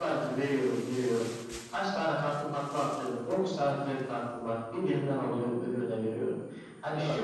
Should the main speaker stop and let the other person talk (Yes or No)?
No